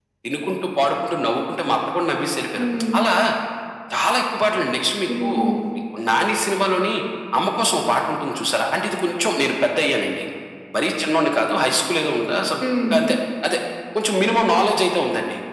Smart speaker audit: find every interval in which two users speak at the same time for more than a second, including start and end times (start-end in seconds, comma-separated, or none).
none